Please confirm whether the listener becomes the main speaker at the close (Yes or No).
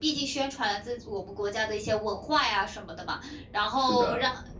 No